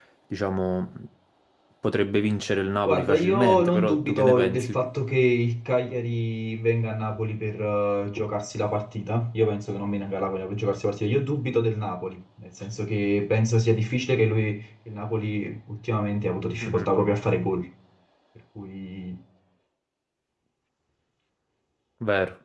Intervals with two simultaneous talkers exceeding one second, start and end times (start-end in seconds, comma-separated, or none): 2.9-4.8